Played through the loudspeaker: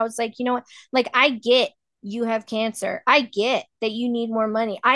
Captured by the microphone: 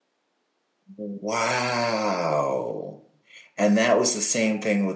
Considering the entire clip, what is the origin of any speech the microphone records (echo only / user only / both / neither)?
user only